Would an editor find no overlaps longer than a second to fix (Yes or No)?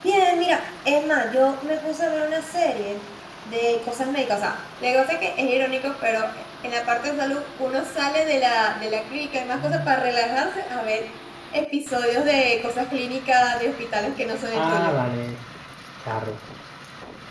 Yes